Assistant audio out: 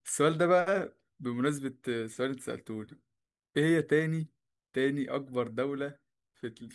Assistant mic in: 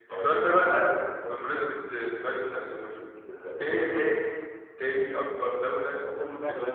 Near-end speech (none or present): present